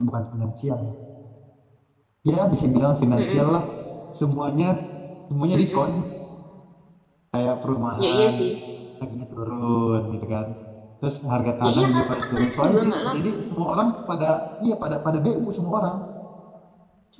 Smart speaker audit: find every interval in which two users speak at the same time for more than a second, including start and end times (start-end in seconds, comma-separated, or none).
11.6-13.4